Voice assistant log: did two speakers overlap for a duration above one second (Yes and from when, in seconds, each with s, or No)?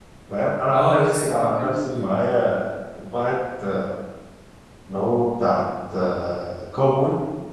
Yes, from 0.7 s